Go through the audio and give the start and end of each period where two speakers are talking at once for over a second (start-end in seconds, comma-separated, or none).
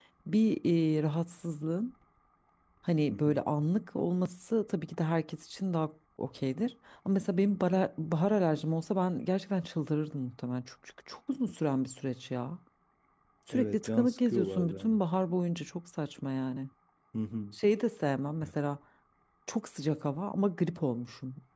13.5-15.0